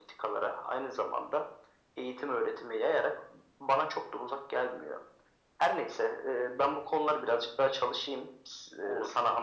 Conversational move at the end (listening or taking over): listening